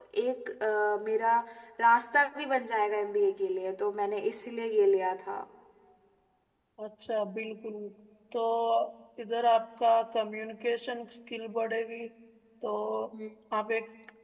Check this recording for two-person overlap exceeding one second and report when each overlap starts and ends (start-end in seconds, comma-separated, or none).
none